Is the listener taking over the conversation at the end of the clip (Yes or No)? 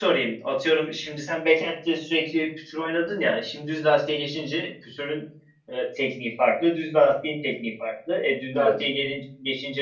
No